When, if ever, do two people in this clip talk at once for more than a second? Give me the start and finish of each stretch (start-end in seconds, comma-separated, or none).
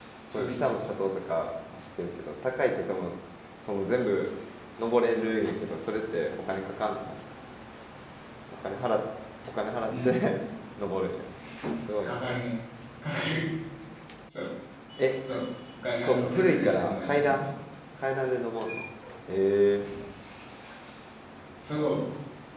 16.0-17.5